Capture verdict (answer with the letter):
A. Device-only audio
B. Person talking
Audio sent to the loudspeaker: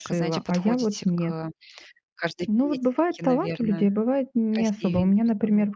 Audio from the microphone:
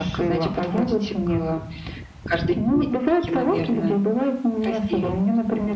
A